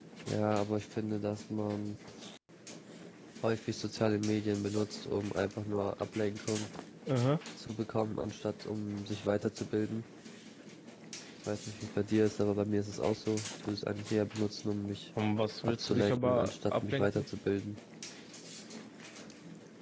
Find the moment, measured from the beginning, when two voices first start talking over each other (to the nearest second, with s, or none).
16 s